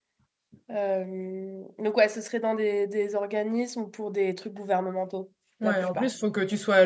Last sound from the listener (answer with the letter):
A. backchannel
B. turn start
B